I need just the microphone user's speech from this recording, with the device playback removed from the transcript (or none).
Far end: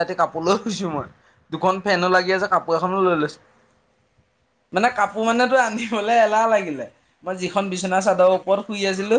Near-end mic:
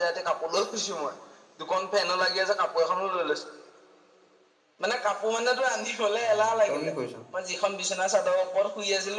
উম, তই কি কৰিছ?